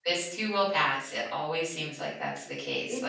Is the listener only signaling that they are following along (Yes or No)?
No